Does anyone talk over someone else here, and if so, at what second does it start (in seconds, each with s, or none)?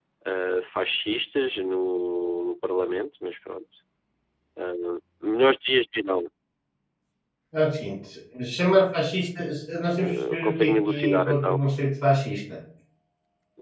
10.0 s